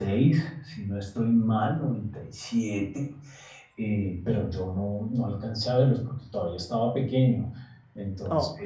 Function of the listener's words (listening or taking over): listening